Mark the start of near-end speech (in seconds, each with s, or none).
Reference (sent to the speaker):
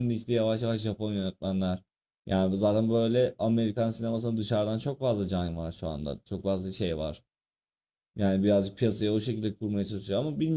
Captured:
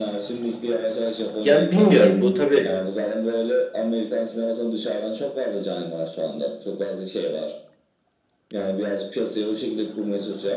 1.4 s